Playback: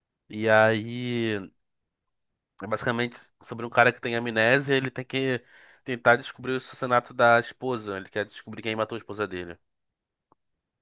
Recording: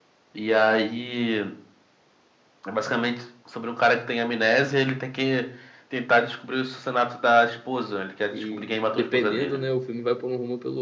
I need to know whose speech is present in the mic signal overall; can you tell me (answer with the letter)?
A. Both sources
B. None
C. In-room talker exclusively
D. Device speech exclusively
A